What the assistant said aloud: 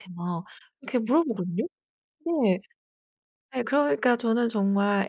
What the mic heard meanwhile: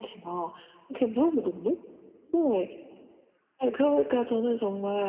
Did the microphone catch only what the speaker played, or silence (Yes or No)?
Yes